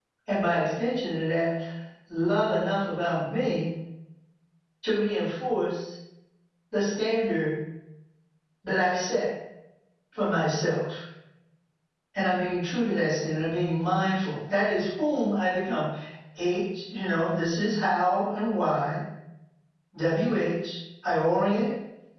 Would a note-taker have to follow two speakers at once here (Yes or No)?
No